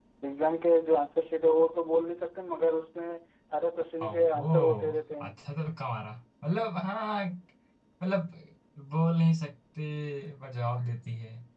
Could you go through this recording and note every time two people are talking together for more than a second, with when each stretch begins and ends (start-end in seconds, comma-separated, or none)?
4.0-5.3